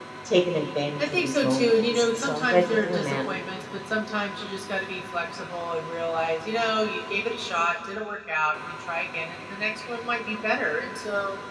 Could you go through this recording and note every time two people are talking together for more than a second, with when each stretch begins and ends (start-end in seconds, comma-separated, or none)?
1.0-3.2